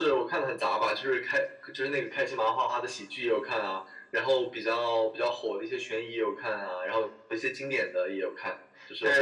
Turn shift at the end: Yes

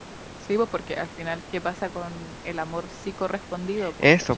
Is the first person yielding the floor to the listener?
Yes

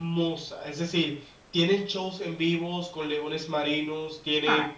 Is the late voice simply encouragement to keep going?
Yes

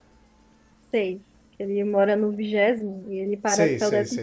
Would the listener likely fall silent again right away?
No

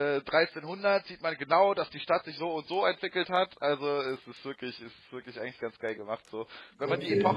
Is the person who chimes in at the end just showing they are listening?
Yes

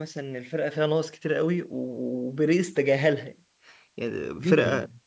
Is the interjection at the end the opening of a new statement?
No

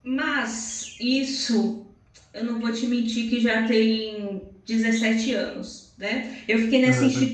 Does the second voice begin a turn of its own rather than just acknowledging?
No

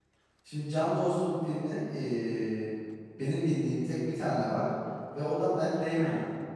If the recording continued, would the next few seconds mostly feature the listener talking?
No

